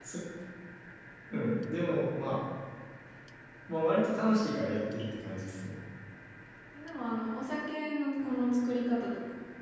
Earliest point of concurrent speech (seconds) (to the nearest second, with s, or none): none